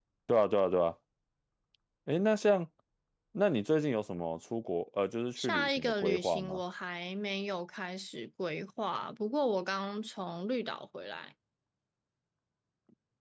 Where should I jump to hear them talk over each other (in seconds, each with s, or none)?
5.4 s